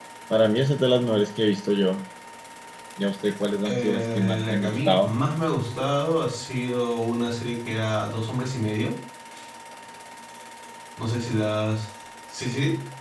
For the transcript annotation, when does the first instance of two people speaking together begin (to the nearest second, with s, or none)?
4 s